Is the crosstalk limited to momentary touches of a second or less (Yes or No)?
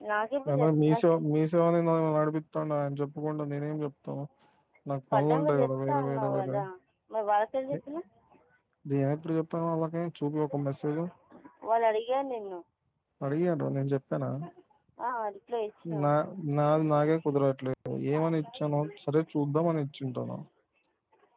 No